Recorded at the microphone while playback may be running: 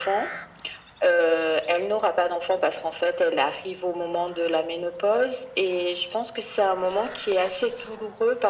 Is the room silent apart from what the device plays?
Yes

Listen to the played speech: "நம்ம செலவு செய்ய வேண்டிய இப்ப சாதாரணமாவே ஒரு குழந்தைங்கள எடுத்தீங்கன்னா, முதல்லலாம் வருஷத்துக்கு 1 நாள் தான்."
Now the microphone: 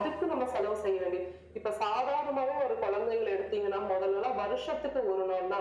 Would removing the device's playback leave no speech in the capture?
Yes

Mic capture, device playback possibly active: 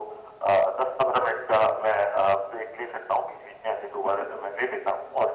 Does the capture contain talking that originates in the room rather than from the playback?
No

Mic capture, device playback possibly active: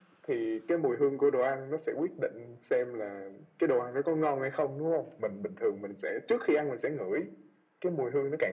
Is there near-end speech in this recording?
No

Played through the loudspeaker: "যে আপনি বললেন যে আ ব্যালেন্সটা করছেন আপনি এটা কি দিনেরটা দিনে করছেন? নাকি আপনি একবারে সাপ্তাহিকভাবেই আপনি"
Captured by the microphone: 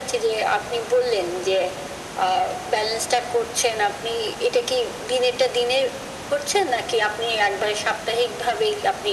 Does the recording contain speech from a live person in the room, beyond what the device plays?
No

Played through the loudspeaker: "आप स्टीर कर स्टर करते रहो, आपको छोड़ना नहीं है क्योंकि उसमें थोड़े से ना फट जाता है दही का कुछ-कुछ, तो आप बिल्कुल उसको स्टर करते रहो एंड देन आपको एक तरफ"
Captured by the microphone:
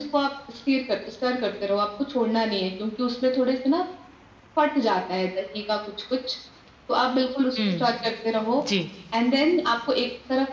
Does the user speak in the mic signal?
Yes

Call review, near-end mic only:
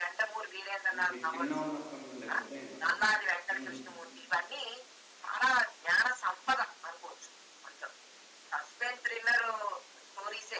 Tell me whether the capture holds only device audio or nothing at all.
No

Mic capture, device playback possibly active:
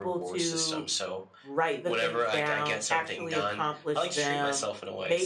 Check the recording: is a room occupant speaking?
Yes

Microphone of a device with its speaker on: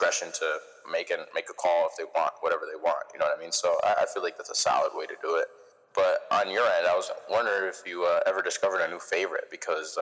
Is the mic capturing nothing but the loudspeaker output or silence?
Yes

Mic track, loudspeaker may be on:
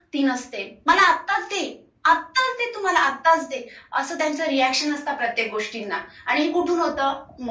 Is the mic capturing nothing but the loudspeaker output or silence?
Yes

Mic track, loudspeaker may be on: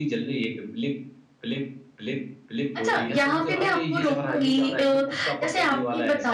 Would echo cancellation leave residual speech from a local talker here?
Yes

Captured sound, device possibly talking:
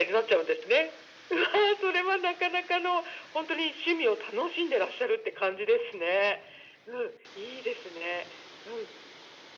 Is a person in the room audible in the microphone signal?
No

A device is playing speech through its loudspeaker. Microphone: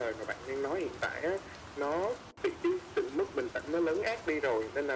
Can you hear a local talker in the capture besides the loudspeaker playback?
No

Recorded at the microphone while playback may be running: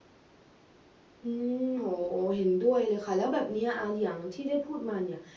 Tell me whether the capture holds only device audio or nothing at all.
No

